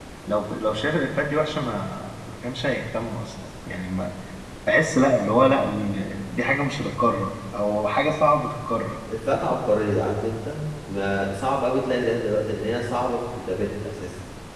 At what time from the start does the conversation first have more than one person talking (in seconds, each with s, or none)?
none